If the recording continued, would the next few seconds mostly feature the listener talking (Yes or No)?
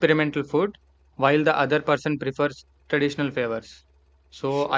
No